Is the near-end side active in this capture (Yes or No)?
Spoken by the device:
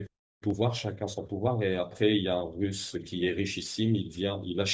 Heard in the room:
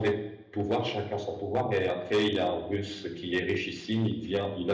No